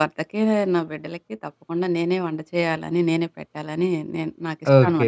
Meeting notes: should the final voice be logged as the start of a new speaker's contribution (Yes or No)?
Yes